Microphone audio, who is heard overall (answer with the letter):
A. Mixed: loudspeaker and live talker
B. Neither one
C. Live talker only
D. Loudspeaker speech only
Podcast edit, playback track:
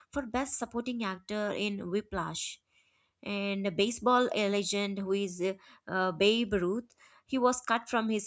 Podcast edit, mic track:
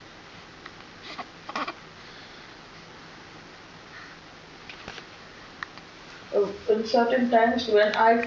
C